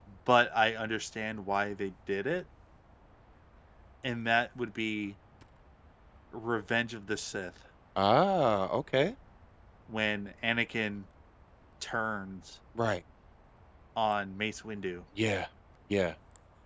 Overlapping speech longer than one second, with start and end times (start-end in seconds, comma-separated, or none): none